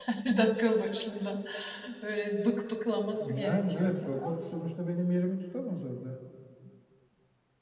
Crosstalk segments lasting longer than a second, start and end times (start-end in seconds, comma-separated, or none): 3.1-4.4